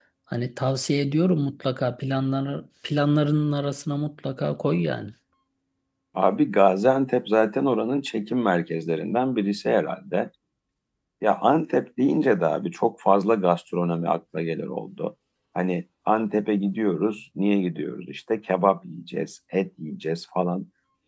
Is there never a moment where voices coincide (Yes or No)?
Yes